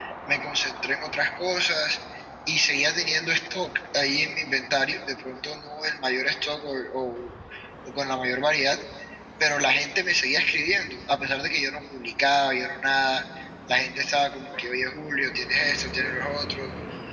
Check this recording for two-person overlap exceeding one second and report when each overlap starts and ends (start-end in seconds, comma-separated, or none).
none